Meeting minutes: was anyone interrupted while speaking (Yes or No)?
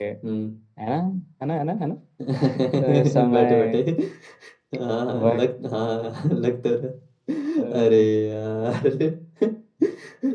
Yes